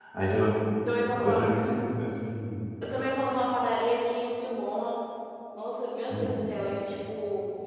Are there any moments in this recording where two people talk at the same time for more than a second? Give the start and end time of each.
none

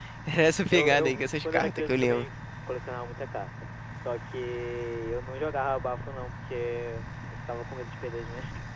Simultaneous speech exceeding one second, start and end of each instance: 0.7-2.2

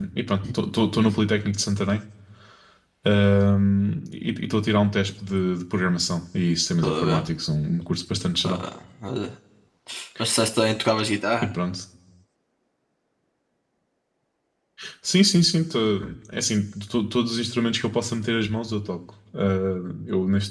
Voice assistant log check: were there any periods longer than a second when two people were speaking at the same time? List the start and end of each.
none

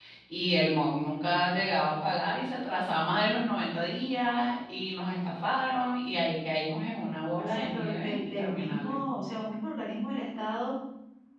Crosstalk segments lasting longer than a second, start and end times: 7.4-8.9

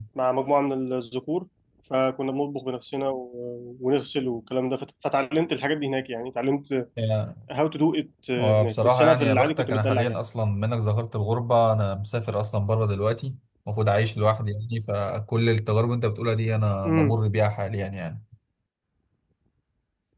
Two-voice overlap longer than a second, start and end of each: 8.4-10.2

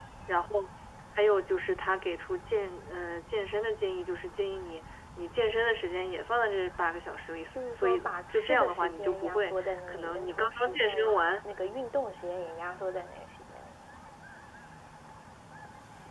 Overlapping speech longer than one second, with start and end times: 7.5-11.0

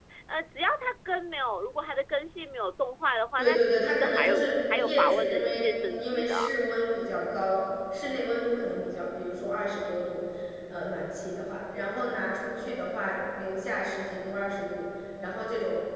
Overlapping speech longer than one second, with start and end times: 3.4-6.3

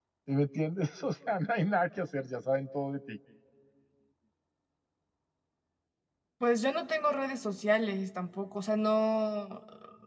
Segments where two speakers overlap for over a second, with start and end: none

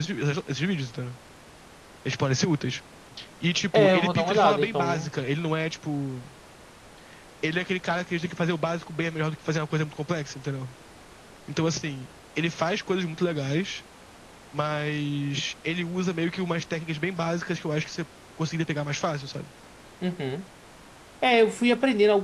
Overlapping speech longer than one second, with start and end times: 3.7-5.1

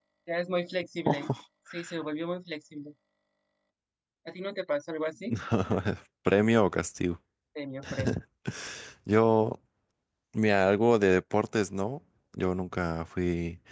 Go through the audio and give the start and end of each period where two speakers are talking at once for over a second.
none

